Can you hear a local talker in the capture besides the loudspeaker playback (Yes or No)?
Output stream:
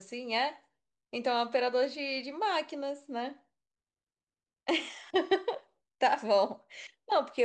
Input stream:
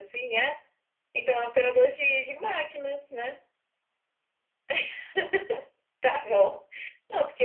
No